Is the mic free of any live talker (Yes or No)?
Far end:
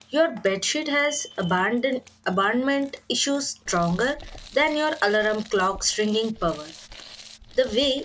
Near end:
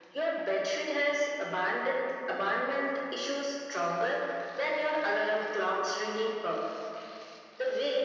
Yes